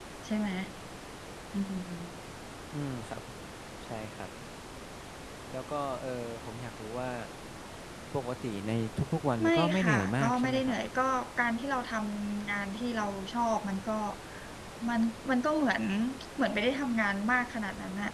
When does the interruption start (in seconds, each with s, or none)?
9.4 s